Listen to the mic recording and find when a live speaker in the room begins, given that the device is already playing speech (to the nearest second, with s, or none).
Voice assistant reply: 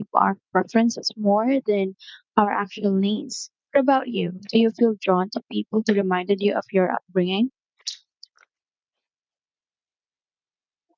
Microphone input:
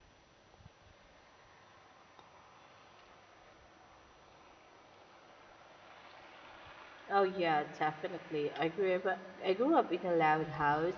7 s